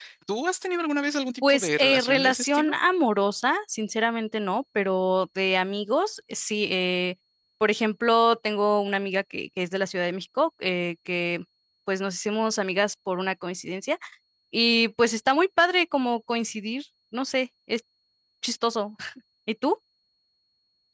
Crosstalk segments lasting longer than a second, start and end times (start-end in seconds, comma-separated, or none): 1.5-2.7